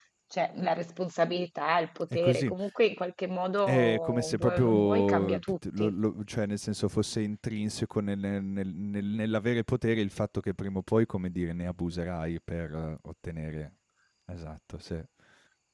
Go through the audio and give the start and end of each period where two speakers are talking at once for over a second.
3.7-5.9

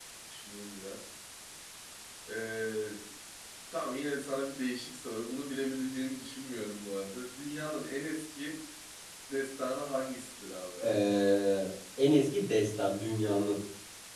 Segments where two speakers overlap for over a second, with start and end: none

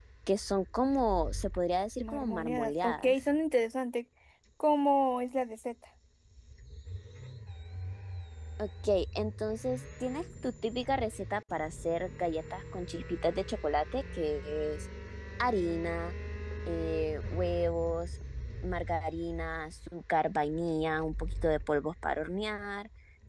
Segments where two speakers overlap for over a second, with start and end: 2.0-3.2

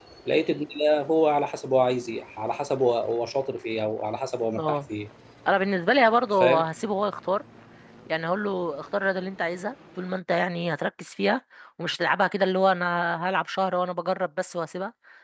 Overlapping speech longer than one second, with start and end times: none

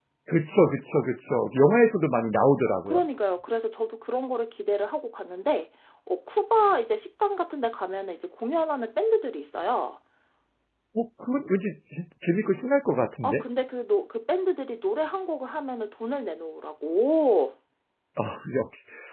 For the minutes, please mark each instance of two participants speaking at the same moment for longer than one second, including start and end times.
none

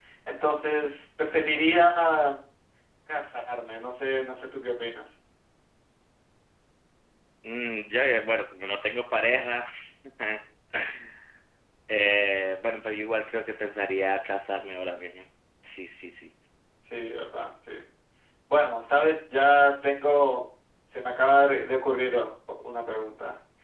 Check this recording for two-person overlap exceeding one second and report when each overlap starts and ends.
none

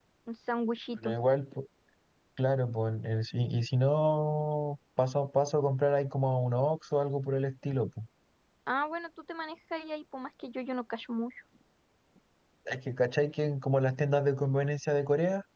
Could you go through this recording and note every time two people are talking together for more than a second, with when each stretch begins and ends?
none

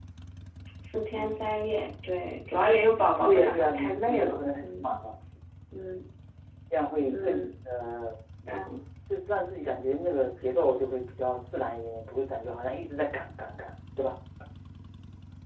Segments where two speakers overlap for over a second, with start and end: 3.2-4.9

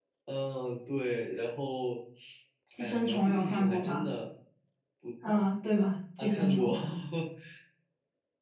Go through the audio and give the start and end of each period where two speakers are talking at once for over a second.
2.8-4.1

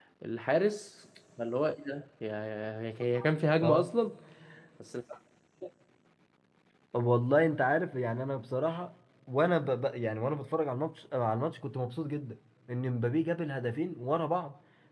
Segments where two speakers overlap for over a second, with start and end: none

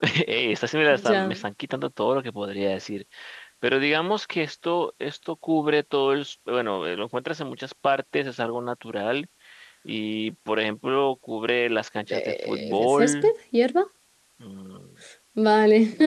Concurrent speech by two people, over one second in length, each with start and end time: 12.1-13.3

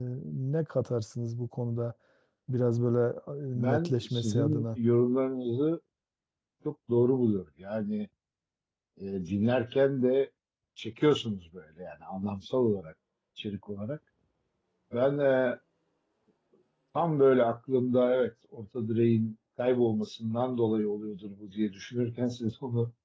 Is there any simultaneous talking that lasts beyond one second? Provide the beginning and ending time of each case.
3.5-4.8

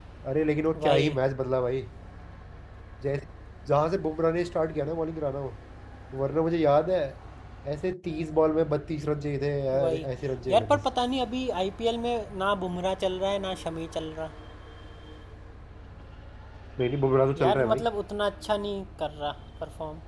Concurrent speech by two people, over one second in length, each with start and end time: none

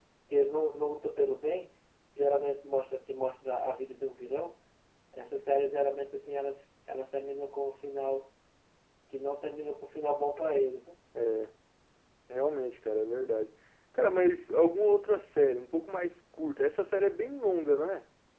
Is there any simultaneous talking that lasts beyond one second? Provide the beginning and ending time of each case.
none

